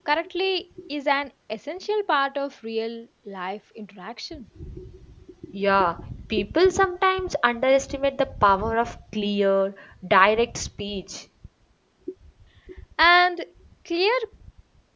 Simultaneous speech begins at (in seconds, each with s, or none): none